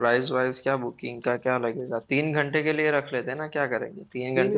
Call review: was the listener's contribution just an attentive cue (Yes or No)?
No